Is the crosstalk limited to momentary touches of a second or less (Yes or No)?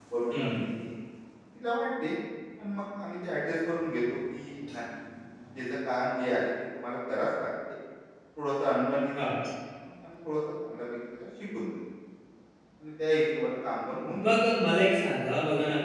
Yes